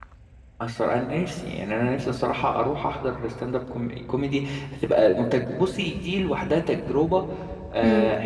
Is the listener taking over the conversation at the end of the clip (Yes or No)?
No